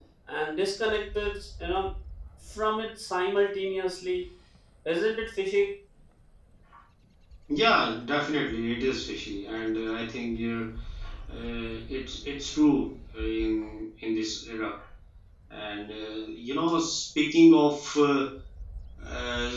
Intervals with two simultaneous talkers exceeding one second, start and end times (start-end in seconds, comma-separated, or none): none